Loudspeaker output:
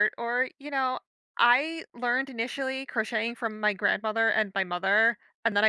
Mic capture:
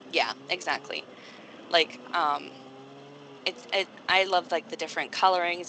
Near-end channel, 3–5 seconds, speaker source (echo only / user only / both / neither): user only